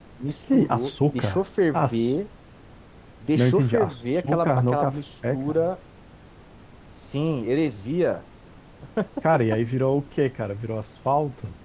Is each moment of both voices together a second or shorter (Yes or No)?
No